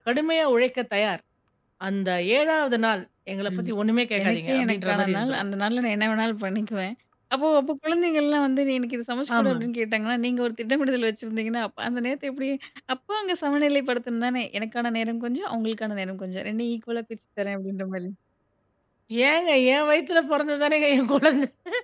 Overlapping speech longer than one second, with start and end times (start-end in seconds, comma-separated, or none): 4.2-5.4